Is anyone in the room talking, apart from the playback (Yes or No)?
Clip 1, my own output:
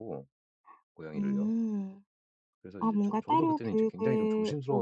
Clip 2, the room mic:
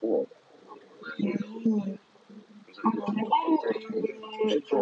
No